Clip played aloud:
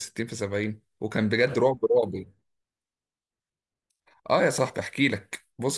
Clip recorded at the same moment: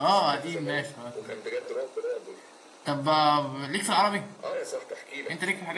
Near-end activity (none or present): present